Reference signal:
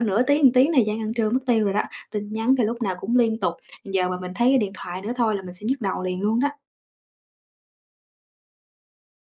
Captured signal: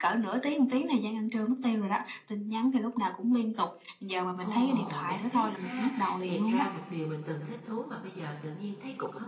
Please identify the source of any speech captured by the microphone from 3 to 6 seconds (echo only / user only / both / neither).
both